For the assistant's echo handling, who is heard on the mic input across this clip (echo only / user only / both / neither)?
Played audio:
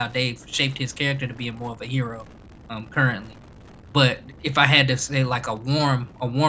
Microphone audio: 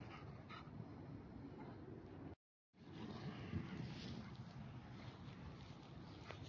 neither